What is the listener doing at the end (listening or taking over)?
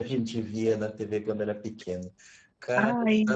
listening